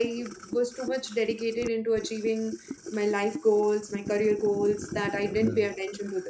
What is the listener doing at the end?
listening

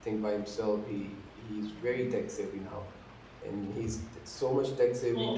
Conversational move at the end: taking over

